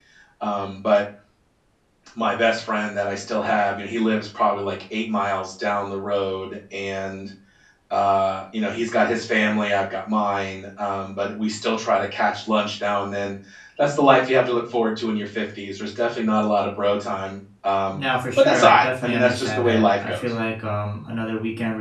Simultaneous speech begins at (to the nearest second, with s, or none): 18 s